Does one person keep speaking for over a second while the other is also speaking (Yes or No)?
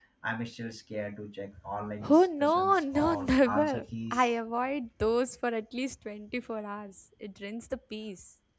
Yes